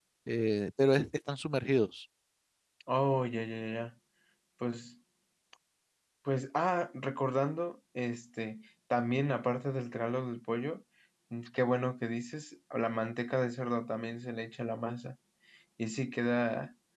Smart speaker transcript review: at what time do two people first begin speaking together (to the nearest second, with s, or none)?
none